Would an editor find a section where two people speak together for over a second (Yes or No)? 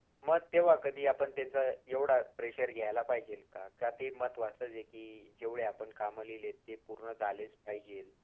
No